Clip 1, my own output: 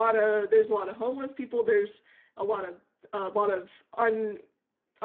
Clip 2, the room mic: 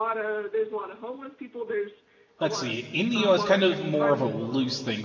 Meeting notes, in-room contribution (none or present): present